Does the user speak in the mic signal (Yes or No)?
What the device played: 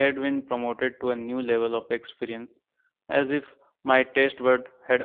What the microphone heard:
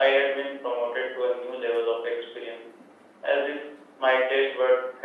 No